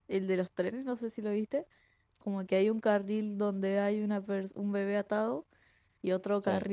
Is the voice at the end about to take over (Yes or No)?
No